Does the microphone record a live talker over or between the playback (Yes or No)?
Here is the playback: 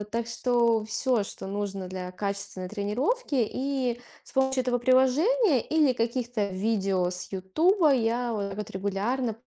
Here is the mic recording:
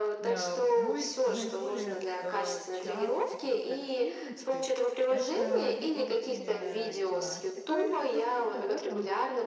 Yes